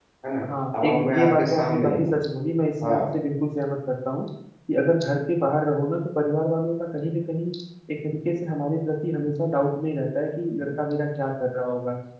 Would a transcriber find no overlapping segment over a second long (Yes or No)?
No